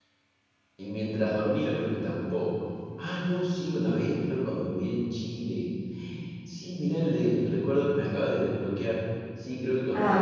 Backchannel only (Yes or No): Yes